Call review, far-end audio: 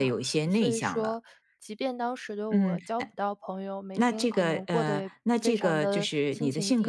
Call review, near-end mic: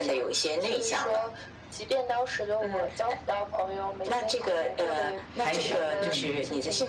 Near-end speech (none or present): present